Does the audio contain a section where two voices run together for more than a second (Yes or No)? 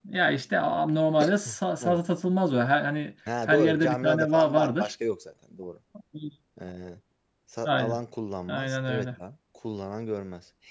Yes